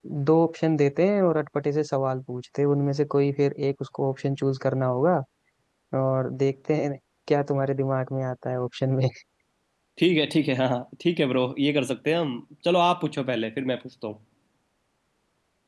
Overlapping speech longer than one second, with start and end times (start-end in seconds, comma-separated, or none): none